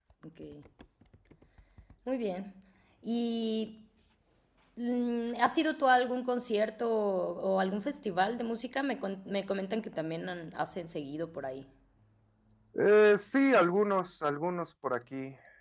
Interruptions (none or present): none